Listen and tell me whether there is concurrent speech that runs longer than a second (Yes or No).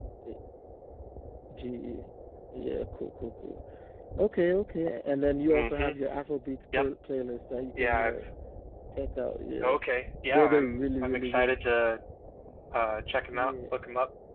Yes